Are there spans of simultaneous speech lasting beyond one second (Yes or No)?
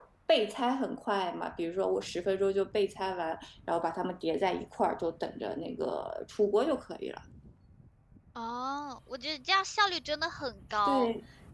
No